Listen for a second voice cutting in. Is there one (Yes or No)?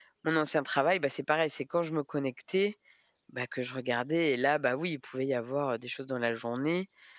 No